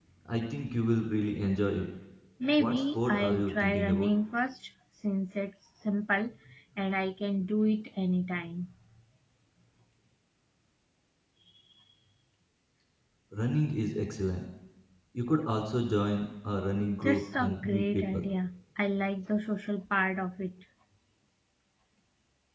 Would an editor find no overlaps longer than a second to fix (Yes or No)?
No